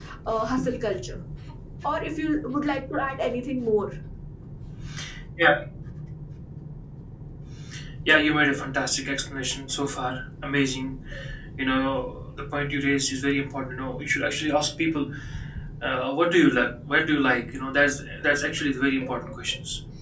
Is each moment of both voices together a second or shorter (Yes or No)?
Yes